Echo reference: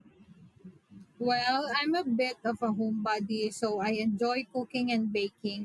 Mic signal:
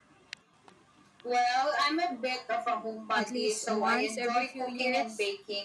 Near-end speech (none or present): present